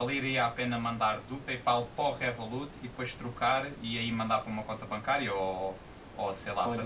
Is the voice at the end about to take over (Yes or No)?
Yes